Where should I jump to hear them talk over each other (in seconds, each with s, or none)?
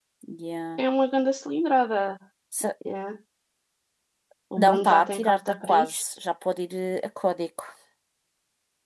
4.6 s